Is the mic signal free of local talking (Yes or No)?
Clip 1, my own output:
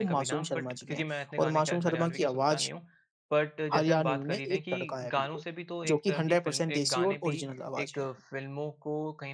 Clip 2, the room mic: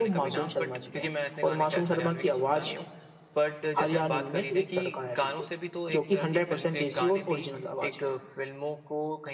Yes